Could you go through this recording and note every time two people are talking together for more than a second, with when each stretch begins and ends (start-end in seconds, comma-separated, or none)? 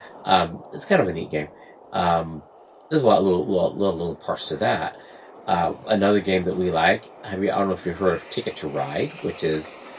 none